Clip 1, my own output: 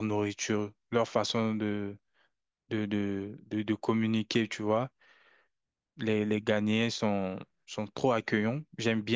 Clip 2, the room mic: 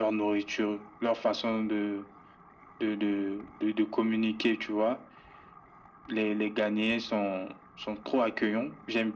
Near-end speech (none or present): none